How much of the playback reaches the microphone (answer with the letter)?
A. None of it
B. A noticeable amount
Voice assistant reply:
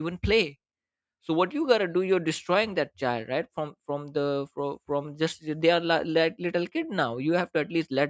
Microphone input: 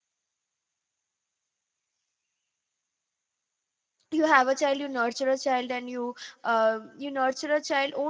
A